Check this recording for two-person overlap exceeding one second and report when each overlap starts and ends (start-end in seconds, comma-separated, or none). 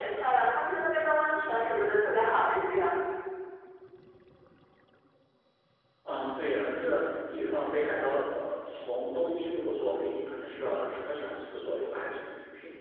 none